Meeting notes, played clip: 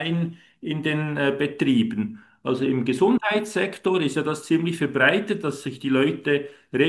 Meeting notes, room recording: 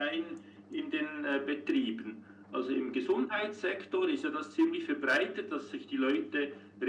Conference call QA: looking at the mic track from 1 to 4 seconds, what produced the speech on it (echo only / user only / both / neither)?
echo only